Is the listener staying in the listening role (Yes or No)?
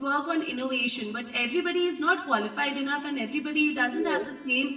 Yes